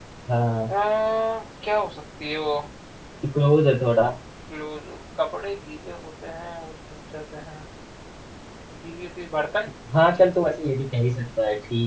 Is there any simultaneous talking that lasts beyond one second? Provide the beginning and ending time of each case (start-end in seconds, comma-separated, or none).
none